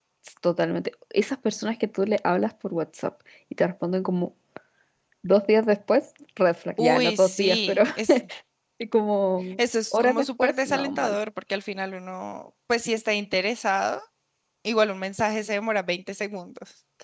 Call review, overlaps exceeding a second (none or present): present